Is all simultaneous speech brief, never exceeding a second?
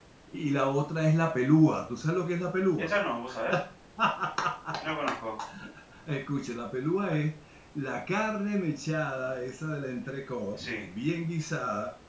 Yes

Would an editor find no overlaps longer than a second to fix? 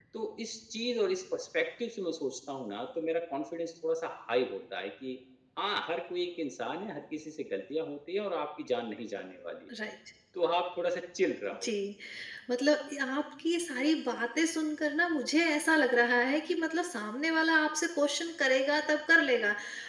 Yes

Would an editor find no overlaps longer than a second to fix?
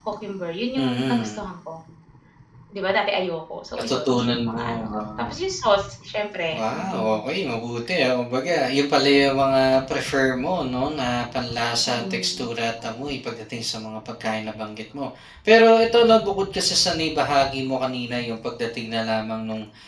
No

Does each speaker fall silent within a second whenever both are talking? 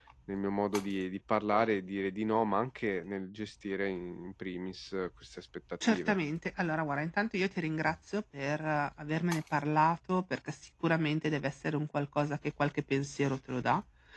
Yes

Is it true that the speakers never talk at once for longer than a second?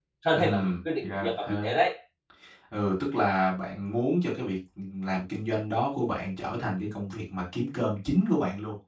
No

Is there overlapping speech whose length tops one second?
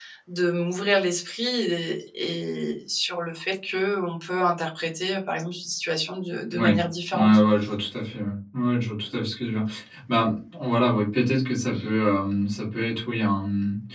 No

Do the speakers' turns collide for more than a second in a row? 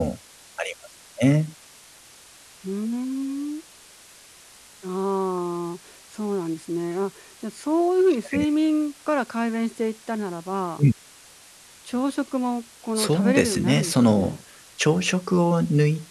Yes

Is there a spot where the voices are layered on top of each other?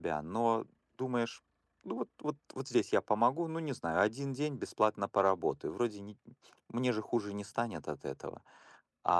No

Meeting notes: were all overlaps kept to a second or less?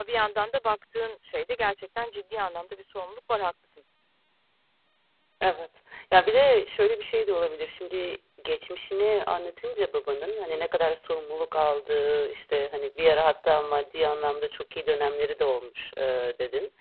Yes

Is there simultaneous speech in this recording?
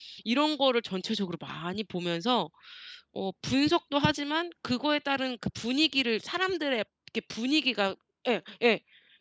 No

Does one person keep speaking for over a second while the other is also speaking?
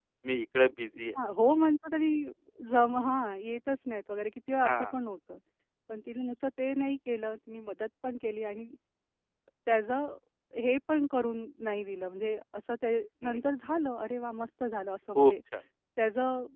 No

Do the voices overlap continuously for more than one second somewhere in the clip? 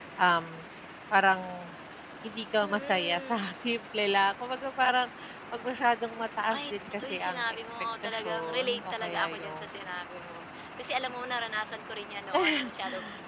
Yes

